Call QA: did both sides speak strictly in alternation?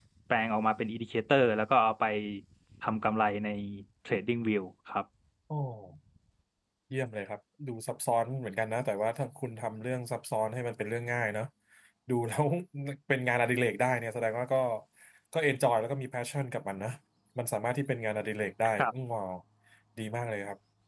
Yes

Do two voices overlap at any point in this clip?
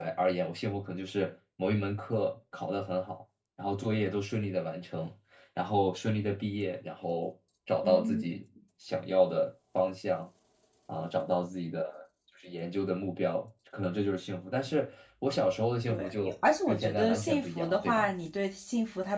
Yes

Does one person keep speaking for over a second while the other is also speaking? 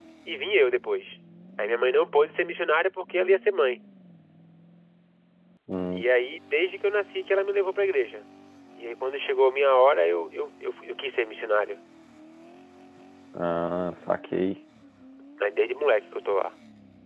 No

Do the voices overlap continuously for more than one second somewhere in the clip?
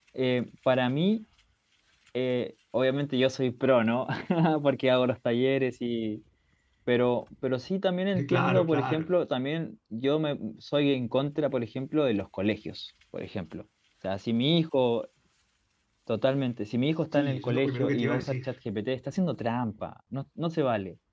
Yes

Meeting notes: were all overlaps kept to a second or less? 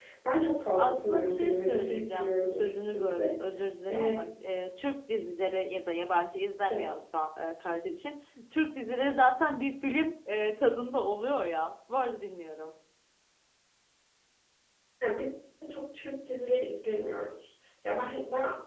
No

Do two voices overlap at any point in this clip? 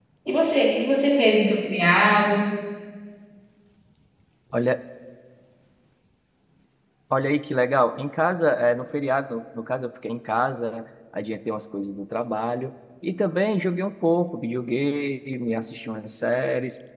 No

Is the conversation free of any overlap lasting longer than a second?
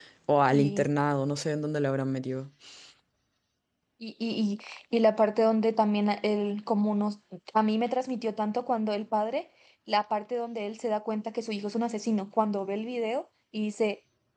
Yes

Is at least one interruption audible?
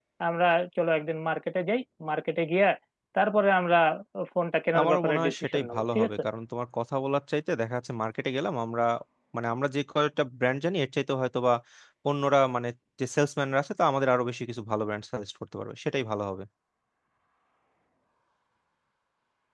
Yes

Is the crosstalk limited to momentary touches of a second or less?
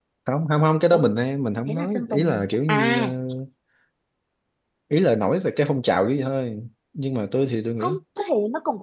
No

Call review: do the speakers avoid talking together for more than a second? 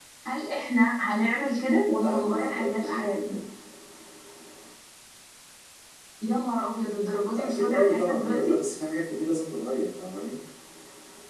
No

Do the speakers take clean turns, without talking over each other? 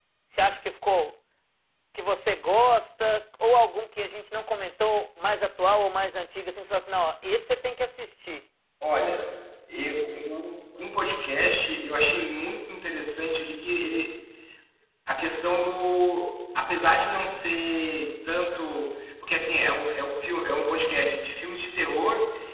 Yes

